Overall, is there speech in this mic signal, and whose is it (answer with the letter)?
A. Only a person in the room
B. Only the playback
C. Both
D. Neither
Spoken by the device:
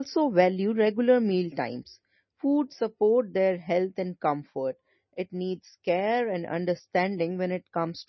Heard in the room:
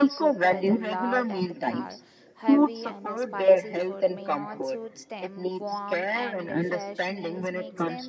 C